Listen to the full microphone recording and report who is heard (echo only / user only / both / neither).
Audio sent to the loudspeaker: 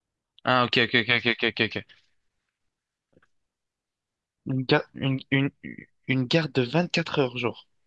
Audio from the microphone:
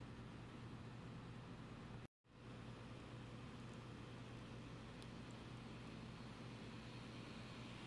neither